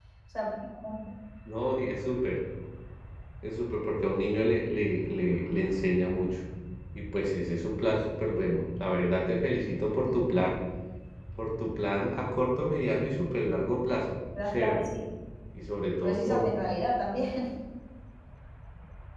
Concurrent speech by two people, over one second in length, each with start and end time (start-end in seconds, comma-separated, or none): none